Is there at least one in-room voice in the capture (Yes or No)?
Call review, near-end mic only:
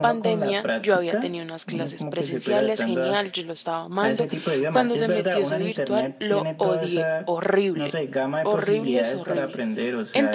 Yes